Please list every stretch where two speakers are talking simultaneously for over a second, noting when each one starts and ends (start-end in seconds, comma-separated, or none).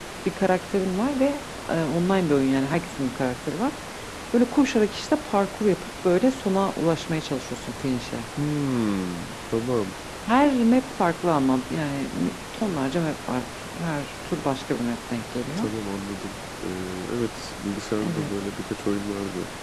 none